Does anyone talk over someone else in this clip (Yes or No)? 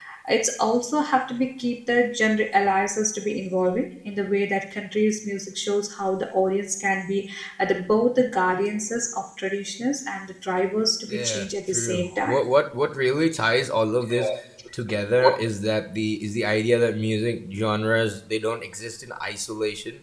Yes